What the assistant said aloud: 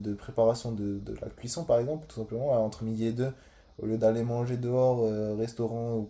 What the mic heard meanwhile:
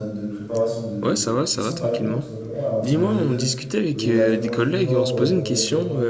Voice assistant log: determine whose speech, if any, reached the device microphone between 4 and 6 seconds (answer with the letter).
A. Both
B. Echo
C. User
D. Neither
A